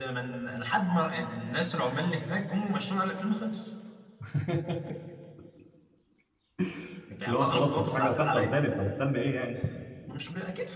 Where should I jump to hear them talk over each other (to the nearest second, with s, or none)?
7 s